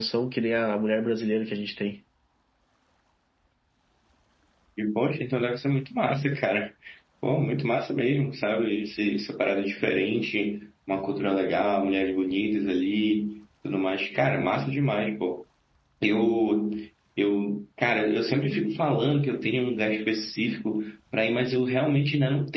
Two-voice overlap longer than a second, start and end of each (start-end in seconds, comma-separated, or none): none